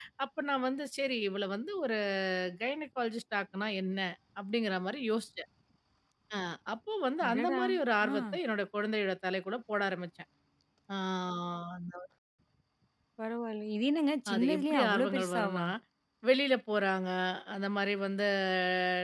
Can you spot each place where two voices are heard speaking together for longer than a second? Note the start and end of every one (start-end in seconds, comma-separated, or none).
14.3-15.6